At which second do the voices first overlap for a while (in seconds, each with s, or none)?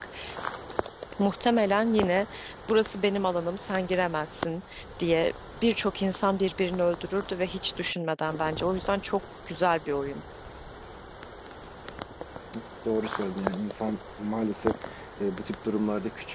none